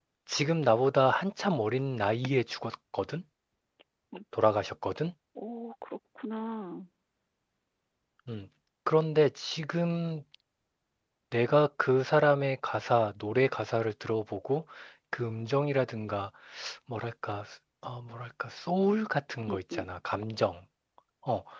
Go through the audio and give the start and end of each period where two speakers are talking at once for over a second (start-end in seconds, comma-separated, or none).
none